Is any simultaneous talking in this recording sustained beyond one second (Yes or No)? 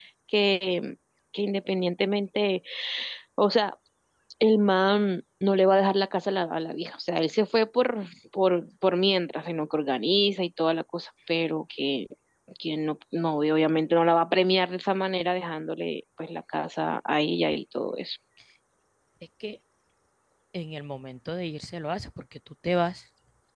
No